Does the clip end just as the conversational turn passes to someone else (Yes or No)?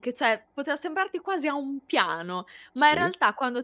No